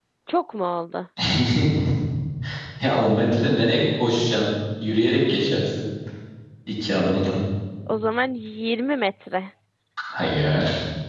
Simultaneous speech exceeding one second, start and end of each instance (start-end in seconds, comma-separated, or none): none